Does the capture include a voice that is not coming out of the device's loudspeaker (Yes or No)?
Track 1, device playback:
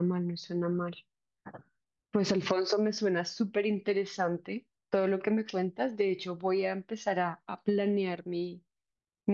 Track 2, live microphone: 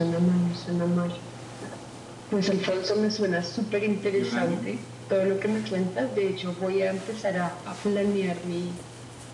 Yes